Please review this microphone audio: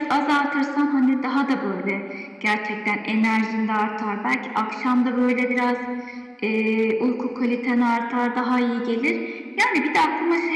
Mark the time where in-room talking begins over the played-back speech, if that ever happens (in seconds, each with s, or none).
none